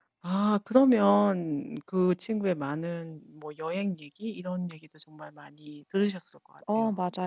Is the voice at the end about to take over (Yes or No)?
Yes